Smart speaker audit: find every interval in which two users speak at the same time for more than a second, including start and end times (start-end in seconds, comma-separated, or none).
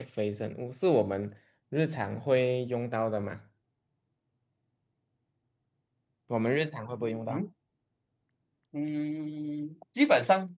none